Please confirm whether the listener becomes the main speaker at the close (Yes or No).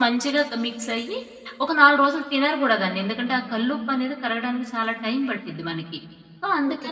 Yes